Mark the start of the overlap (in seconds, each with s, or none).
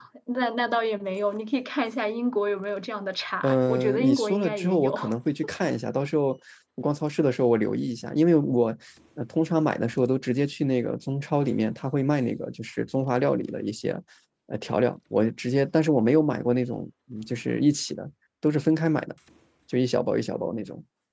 3.4 s